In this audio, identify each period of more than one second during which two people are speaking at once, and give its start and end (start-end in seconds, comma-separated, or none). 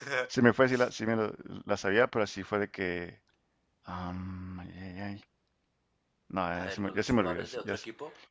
6.5-7.8